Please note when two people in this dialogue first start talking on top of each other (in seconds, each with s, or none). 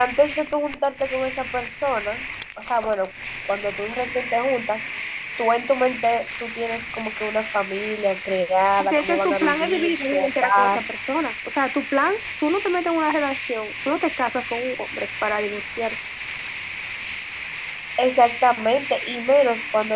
8.8 s